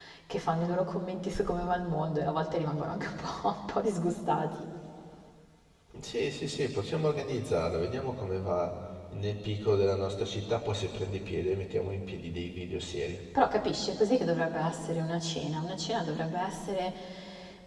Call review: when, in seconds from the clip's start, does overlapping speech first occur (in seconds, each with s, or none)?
none